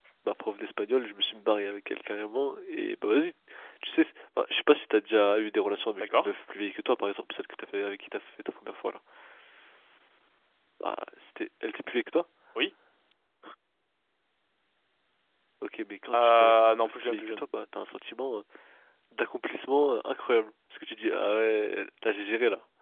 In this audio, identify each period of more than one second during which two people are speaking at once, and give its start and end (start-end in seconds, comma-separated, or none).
16.2-17.4